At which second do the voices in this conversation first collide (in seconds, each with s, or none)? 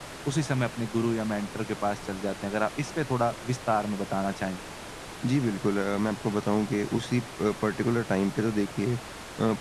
none